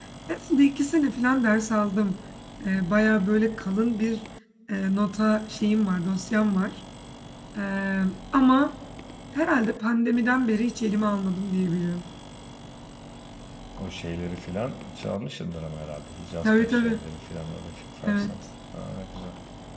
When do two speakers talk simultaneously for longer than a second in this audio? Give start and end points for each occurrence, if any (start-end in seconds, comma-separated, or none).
none